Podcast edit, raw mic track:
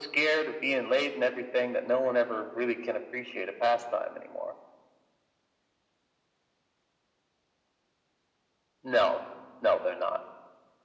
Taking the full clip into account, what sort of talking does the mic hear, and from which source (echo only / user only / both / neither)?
echo only